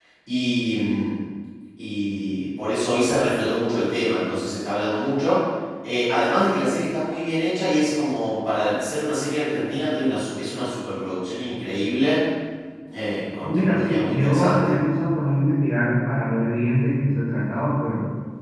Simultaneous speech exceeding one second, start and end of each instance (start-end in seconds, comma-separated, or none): 13.4-14.7